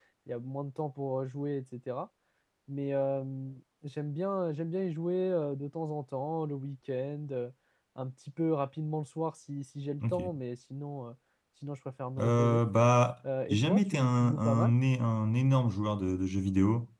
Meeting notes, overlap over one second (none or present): present